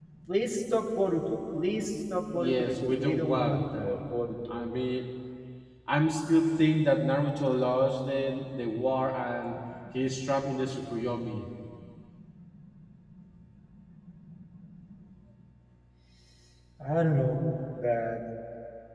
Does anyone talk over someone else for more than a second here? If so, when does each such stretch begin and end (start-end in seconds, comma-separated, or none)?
2.3-4.0